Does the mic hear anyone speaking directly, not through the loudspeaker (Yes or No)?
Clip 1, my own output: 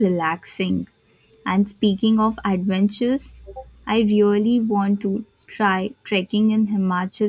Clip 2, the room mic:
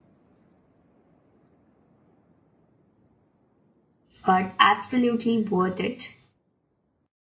Yes